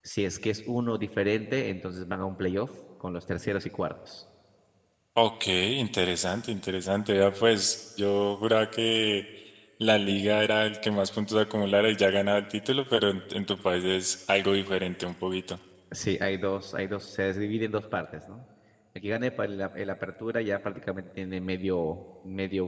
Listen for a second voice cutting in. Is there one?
No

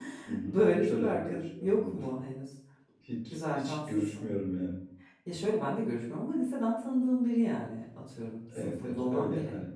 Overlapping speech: Yes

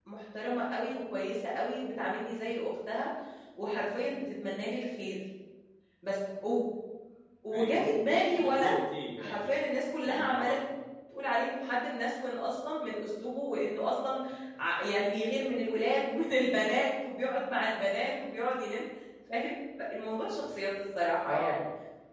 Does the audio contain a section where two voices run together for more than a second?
No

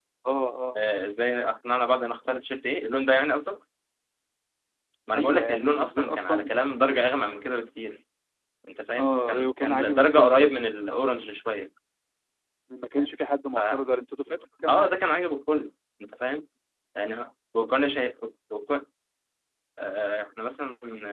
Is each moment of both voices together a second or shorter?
No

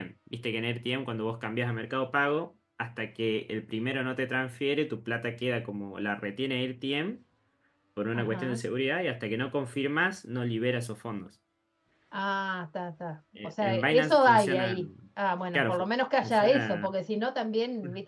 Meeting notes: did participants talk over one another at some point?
Yes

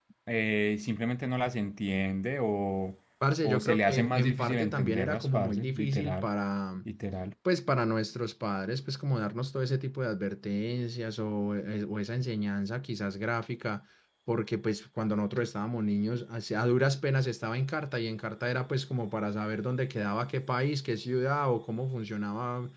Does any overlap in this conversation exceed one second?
Yes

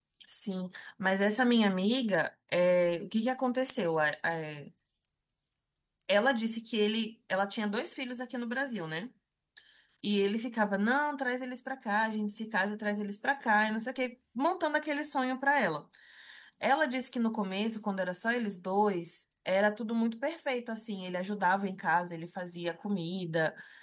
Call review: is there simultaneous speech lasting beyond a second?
No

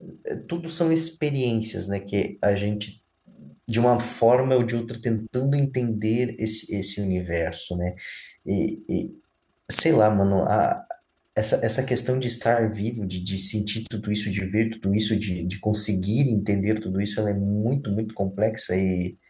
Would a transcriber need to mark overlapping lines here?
No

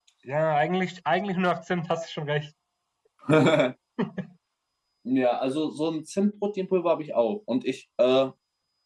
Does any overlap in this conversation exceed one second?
No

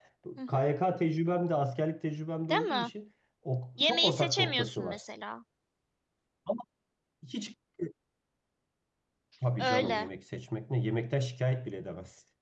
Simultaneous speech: Yes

